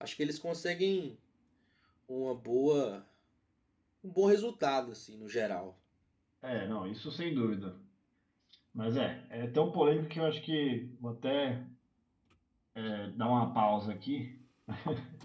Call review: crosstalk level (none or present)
none